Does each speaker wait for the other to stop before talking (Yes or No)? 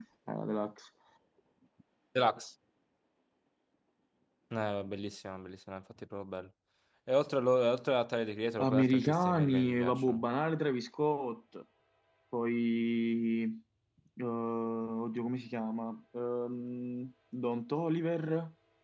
No